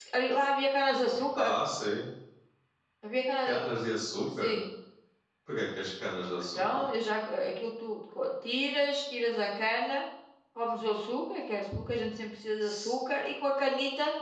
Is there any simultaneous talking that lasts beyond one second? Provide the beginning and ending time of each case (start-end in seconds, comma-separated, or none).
none